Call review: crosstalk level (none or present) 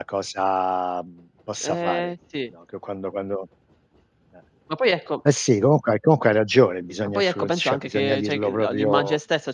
present